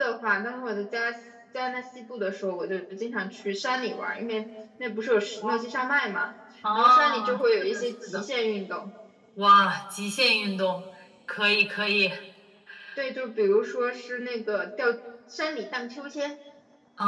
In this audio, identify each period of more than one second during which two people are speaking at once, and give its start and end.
6.8-8.2

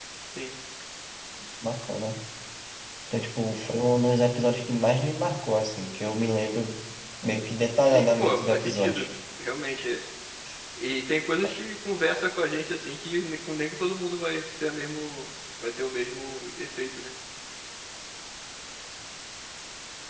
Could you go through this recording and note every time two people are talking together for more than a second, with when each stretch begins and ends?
7.8-9.1

